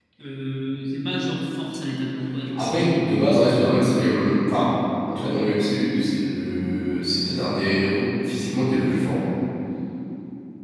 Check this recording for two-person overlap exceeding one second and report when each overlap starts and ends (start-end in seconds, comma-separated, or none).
none